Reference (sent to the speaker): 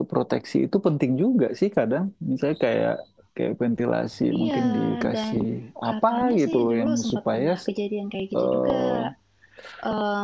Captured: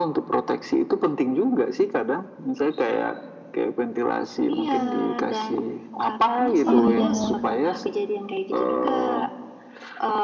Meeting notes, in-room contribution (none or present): present